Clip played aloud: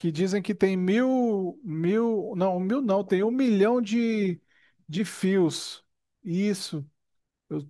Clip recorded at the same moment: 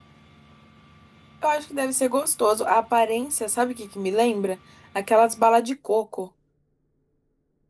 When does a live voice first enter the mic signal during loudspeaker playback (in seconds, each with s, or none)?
1.4 s